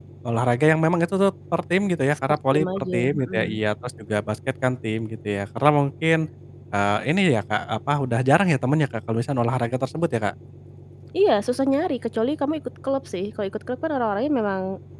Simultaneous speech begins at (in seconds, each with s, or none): 2.3 s